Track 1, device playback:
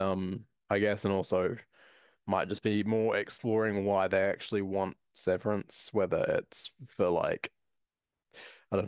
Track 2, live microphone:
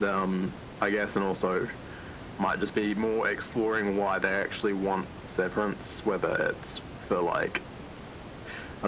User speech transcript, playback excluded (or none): none